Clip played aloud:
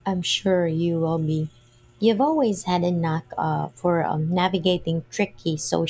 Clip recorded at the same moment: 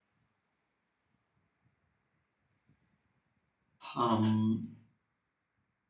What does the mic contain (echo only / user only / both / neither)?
user only